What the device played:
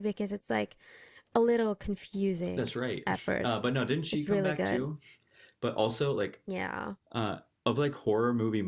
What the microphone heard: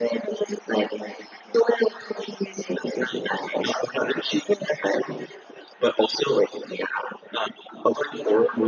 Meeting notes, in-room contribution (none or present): none